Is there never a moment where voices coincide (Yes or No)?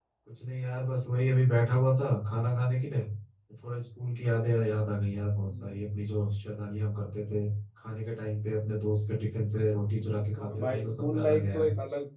No